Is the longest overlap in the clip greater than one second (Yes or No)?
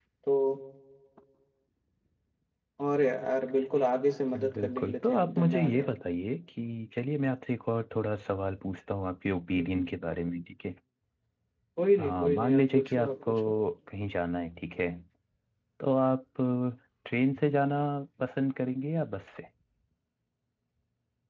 Yes